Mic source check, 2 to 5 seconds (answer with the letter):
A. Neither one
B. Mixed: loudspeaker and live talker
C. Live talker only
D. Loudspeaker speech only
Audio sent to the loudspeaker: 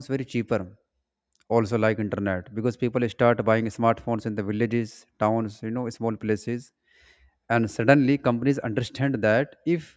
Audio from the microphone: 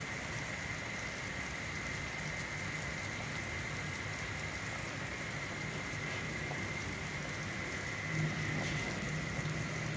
A